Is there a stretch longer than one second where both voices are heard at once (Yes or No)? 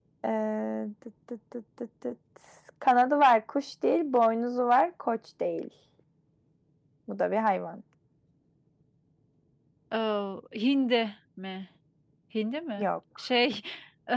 No